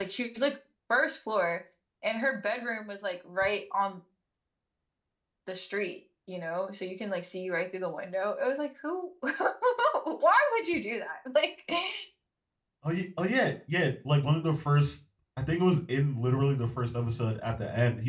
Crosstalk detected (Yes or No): No